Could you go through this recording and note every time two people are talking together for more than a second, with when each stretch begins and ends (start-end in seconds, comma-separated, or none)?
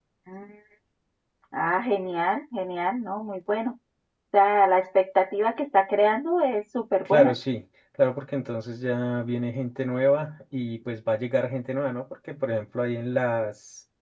none